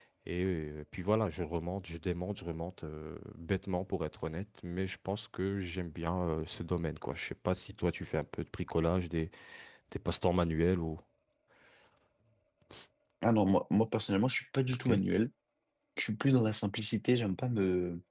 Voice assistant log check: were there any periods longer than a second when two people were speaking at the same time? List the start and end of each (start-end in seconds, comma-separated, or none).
none